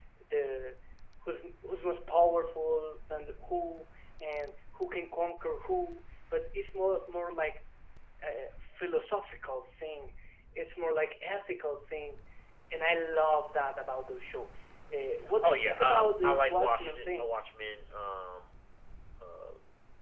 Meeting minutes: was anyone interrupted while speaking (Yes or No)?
Yes